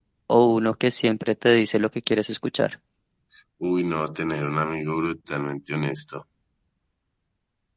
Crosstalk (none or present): none